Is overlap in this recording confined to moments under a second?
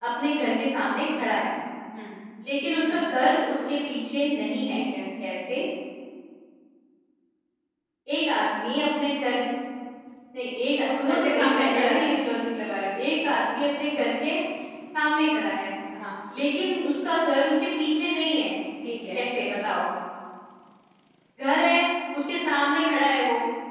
No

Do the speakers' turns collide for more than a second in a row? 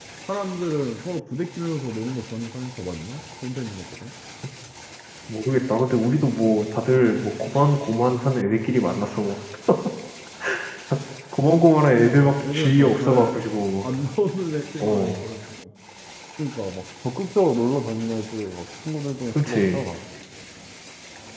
Yes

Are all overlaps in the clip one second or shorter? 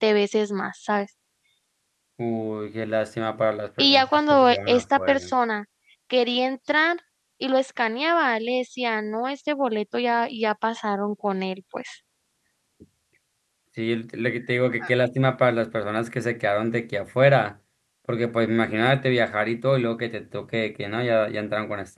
No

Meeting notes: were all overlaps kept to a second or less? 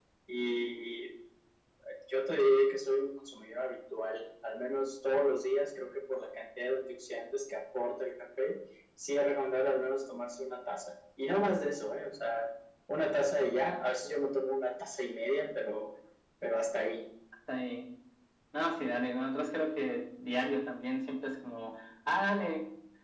Yes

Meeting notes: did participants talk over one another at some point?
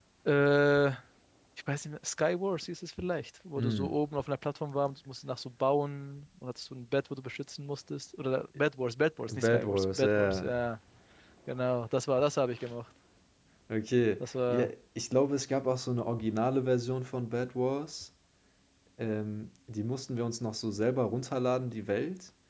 Yes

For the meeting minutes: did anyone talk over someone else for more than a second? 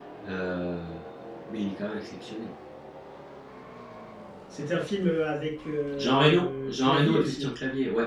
Yes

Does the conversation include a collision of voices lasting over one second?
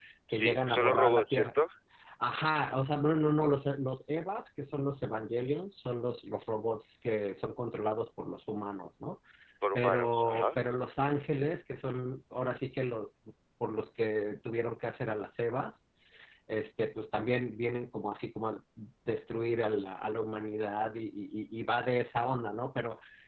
Yes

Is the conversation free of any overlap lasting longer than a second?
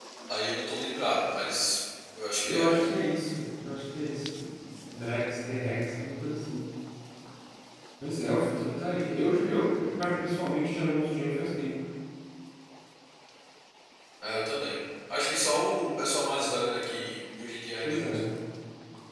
Yes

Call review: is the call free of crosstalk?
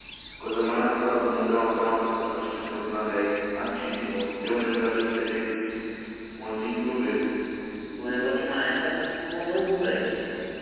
Yes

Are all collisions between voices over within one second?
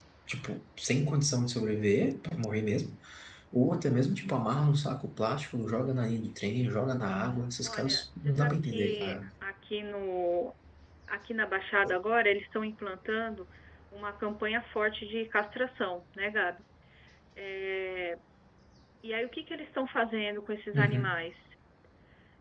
No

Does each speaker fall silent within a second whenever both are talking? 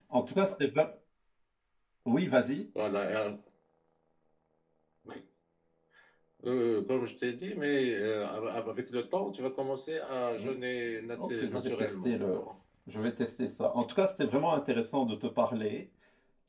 No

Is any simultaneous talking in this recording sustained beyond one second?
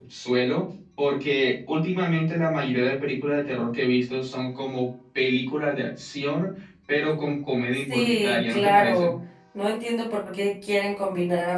Yes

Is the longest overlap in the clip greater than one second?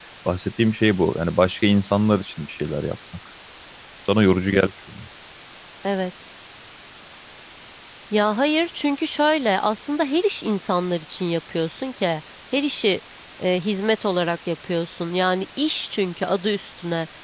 No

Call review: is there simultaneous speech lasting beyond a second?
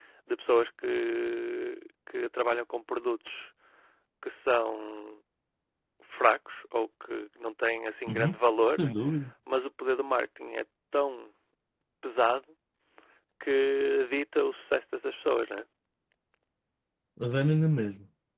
No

